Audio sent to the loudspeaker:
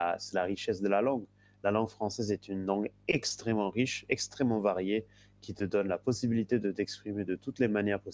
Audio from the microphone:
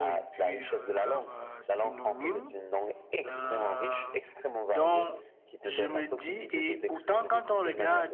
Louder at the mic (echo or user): user